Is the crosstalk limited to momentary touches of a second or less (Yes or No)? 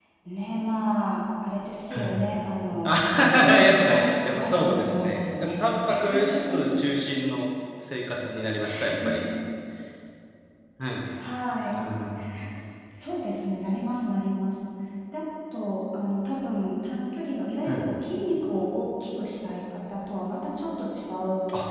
No